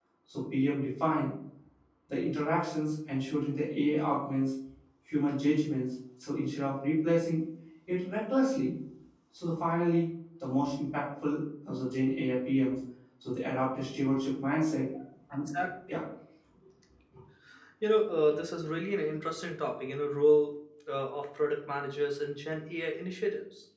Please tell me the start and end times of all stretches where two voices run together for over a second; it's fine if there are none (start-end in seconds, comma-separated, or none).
none